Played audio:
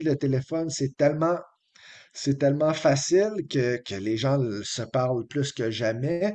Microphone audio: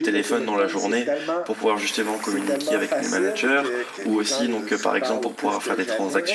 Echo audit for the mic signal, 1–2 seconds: both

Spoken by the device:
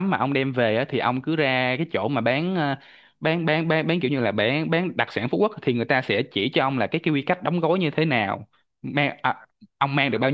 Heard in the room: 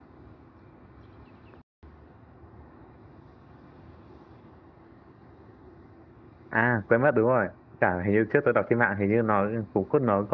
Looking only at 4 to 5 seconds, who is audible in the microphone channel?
neither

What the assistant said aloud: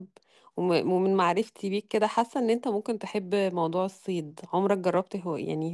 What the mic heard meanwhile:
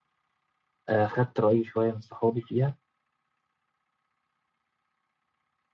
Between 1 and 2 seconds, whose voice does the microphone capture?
user only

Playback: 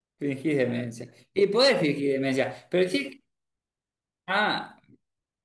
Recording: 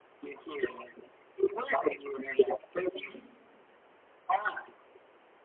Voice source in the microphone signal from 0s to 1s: echo only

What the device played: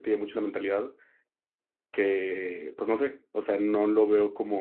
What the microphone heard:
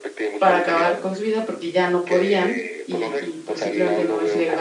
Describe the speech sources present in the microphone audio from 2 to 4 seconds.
both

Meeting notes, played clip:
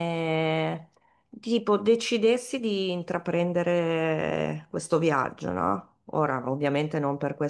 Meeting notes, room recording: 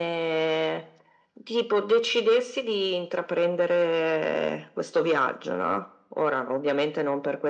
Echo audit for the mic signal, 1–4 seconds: echo only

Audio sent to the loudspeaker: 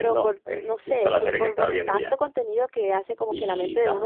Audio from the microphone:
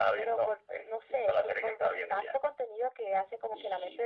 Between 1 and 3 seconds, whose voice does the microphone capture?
echo only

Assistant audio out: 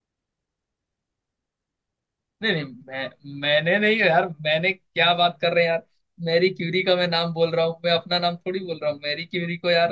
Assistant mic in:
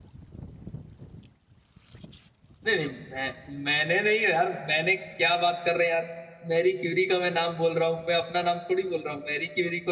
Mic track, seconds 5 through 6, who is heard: echo only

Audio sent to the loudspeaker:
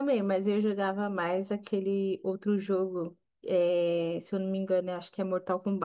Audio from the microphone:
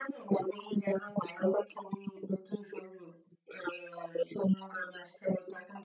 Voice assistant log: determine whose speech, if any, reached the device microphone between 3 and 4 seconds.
echo only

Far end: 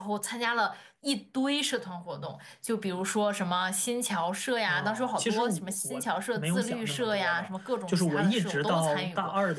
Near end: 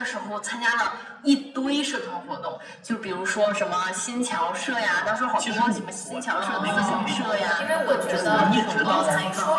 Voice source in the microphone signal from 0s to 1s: echo only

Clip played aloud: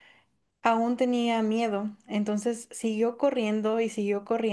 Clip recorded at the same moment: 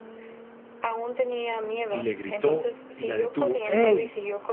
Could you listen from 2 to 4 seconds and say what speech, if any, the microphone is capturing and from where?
both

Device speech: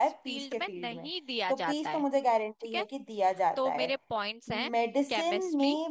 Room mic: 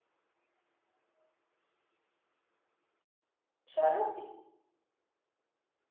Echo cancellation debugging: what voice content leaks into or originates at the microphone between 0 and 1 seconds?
neither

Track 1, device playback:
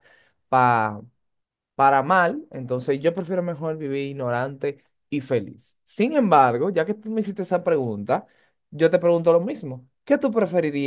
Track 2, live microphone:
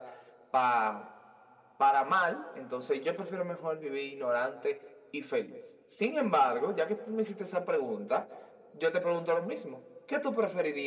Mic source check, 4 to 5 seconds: echo only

